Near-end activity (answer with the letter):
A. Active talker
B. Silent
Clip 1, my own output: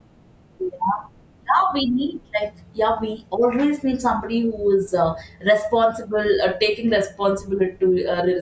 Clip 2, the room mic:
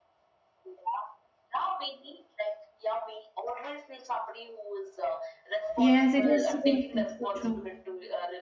A